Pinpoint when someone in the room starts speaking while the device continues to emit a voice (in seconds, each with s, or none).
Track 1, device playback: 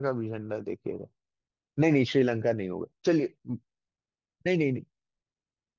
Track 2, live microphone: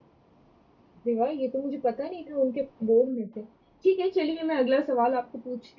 0.9 s